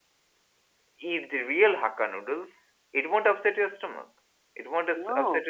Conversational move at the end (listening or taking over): listening